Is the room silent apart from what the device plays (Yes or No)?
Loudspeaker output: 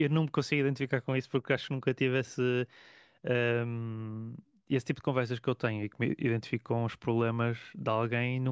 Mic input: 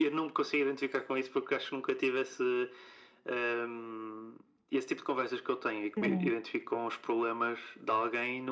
No